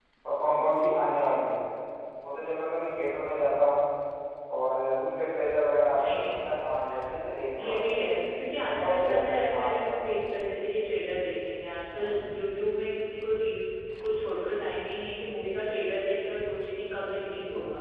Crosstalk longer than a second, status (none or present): present